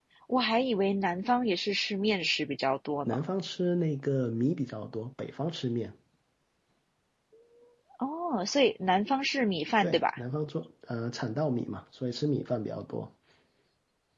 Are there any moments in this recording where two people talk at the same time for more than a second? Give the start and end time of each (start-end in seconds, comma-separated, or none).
none